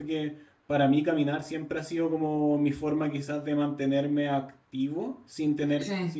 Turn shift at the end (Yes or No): No